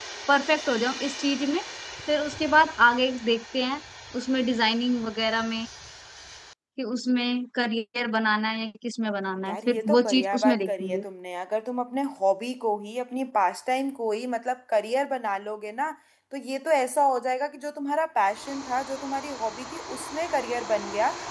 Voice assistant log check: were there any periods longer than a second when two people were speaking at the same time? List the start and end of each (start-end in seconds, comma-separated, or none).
9.4-11.0